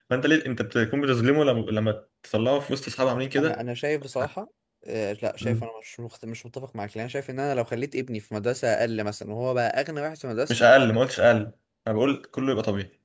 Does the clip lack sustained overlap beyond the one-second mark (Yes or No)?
Yes